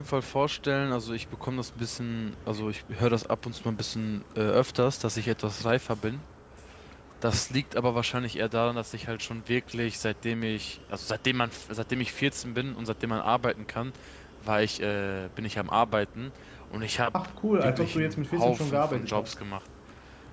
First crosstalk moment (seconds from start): 17.6 s

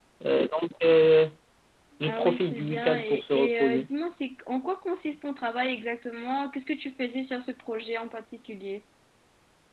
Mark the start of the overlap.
2.0 s

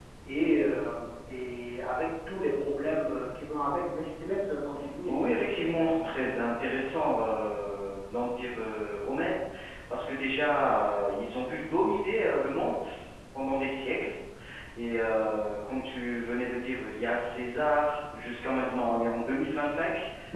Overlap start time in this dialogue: 5.0 s

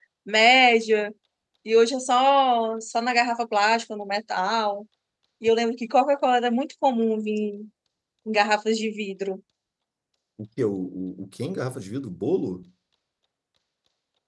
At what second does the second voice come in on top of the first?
none

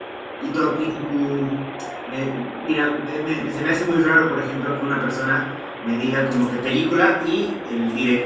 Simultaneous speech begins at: none

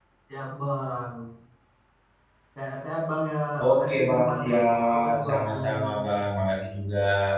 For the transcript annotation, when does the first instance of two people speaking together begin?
3.7 s

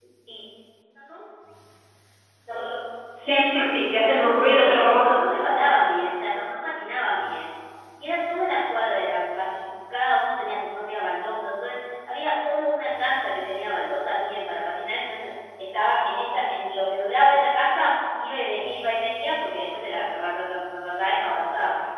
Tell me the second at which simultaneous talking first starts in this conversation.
3.2 s

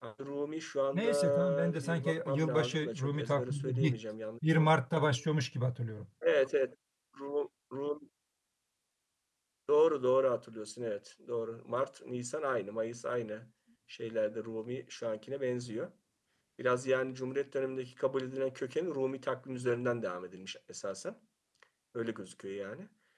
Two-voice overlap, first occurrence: 0.9 s

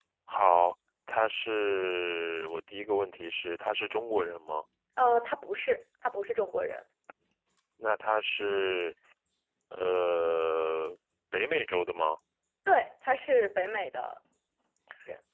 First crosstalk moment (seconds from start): none

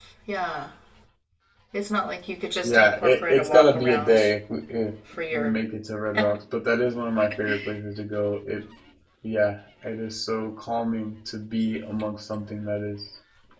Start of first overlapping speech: 2.6 s

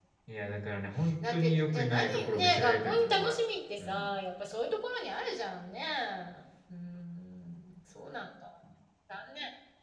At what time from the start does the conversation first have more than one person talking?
1.2 s

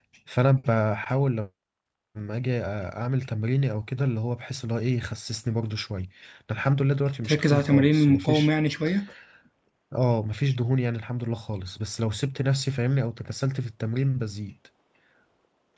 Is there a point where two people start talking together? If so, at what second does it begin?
7.2 s

